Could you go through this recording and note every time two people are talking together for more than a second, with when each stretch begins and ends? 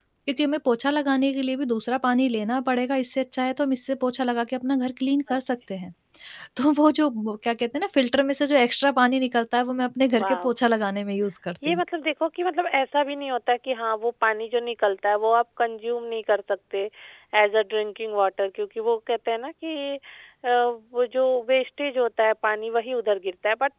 none

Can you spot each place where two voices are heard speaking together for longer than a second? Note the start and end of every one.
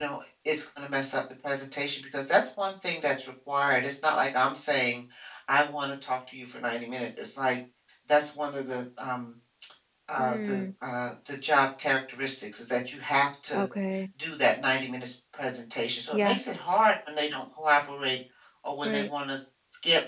none

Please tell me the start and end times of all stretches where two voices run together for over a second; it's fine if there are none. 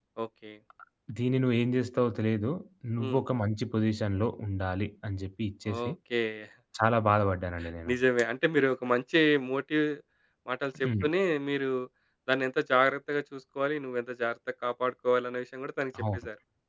none

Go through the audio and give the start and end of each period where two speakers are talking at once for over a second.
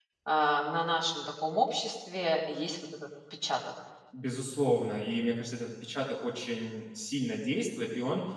none

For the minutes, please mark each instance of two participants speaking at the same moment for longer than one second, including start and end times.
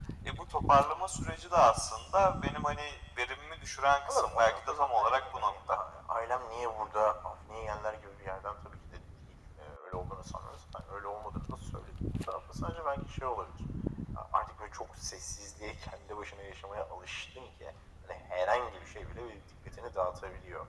4.1-5.5

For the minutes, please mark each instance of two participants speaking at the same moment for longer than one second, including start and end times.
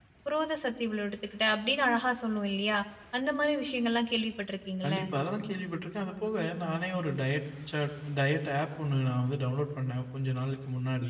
none

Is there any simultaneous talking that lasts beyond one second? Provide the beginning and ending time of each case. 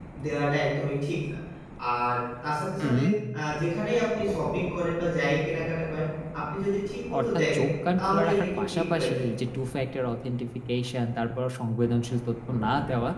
8.0-9.3

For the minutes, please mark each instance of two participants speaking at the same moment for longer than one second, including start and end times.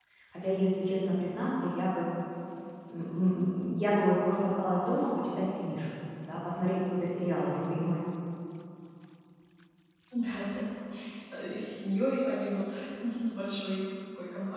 none

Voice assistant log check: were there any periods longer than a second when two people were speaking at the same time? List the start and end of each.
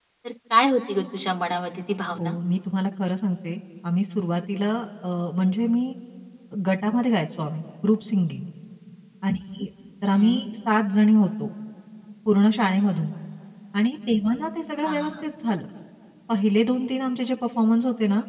none

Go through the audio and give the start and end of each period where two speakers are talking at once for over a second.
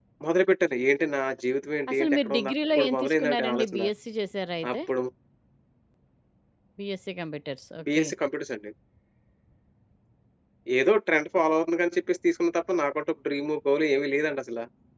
1.9-3.9

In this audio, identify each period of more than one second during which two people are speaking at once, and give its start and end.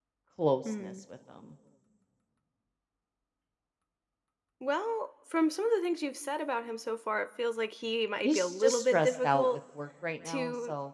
8.2-9.6

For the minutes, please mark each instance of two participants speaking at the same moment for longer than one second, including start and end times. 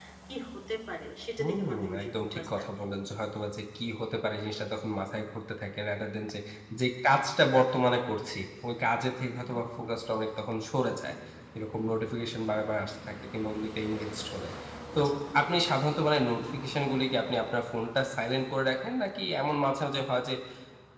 1.4-2.8

